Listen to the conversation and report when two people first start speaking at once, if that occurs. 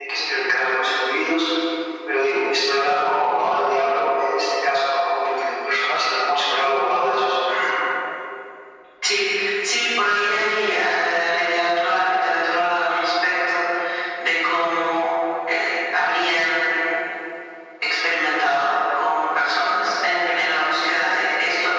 none

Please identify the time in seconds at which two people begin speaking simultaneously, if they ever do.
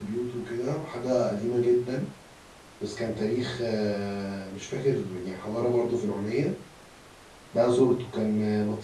none

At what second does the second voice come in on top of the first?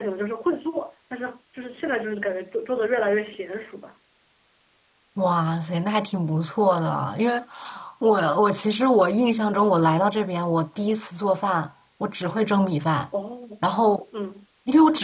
none

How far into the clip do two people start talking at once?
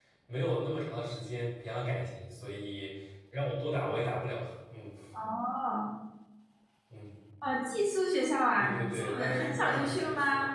8.6 s

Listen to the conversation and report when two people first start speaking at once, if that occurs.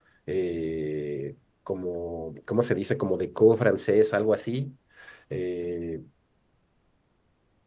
none

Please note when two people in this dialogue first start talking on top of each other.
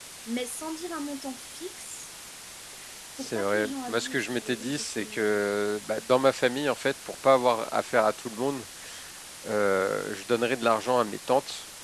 3.2 s

